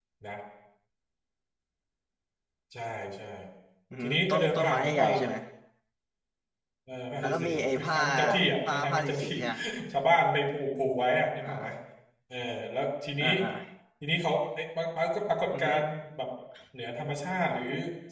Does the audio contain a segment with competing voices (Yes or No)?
Yes